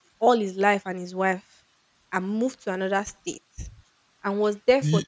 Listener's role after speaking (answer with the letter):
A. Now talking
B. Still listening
B